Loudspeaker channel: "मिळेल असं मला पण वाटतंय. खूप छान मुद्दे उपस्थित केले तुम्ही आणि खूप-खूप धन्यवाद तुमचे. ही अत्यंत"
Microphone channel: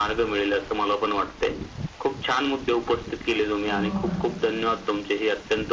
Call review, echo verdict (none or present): present